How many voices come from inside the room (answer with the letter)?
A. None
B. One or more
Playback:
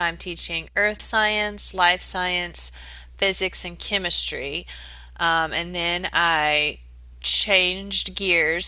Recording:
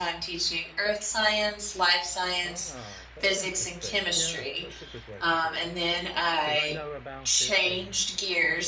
B